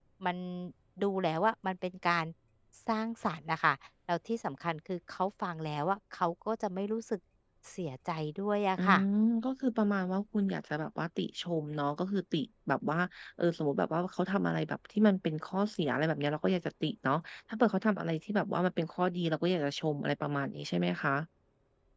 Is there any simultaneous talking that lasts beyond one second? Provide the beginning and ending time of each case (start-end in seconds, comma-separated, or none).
none